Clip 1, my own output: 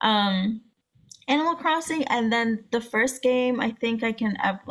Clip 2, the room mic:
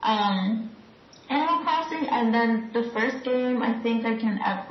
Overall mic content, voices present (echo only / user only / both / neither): echo only